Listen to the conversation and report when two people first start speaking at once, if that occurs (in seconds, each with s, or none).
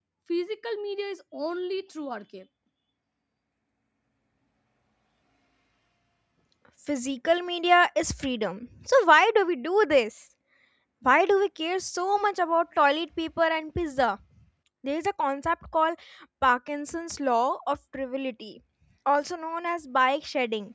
none